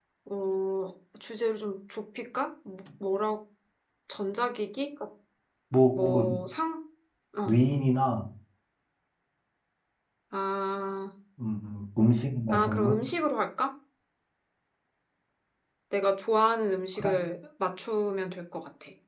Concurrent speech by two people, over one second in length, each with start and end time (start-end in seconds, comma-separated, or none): none